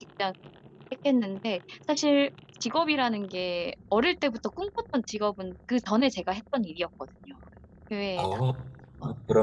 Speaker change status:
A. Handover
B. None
A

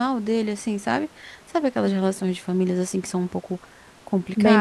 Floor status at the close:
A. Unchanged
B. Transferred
B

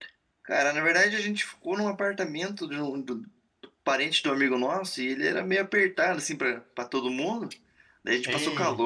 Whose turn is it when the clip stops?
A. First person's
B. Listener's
A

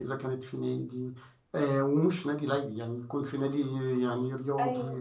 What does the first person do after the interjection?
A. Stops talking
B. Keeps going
B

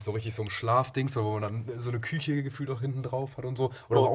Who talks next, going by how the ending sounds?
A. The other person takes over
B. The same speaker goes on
B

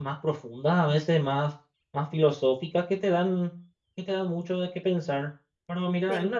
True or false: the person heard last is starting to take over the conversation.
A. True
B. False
B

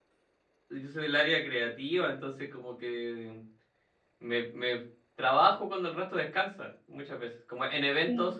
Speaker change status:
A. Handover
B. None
B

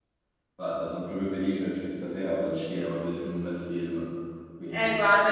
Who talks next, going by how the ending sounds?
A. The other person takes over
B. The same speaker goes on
A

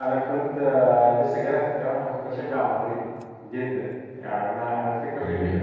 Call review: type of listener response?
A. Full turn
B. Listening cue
B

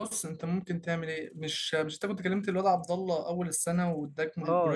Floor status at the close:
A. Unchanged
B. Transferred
B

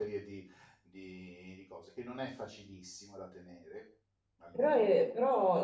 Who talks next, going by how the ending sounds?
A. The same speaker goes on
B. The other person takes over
B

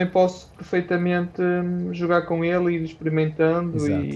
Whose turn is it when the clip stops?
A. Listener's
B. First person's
A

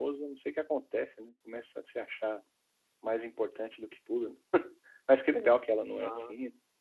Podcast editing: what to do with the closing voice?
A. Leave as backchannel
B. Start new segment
A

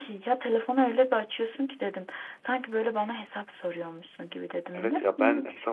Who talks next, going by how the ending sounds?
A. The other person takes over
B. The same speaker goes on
A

